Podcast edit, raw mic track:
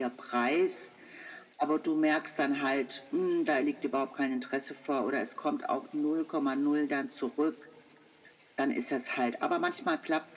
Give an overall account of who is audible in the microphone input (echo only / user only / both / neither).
echo only